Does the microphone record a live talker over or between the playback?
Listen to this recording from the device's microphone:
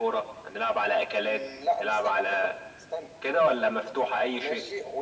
No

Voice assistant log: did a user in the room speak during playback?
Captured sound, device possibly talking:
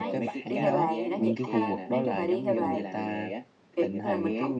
Yes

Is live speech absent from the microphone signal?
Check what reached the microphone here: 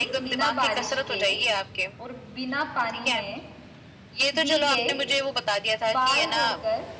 No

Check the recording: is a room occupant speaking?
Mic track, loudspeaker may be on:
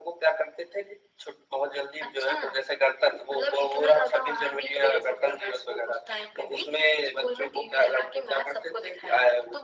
No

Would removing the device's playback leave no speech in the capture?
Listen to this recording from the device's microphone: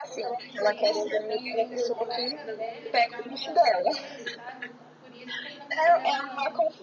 No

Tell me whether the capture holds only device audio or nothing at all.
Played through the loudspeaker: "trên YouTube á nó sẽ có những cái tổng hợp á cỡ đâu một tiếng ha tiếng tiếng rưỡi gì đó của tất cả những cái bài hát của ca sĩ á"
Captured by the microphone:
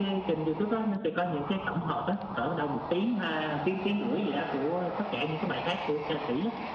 Yes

